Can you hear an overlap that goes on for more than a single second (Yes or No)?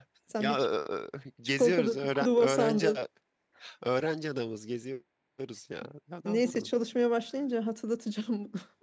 Yes